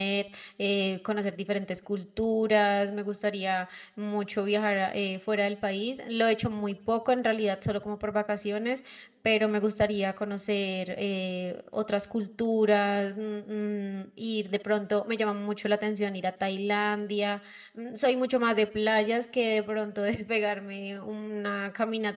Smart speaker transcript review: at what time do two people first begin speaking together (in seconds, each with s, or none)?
none